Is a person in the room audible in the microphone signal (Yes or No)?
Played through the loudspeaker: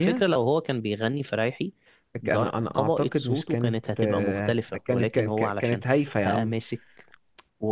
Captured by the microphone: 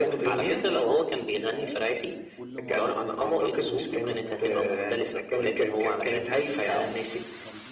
Yes